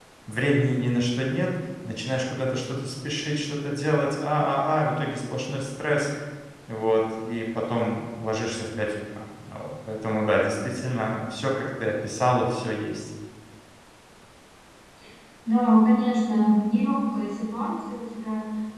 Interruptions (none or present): none